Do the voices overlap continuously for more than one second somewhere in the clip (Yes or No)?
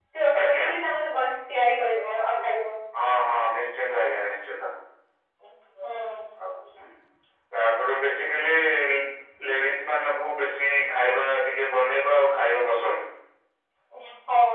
No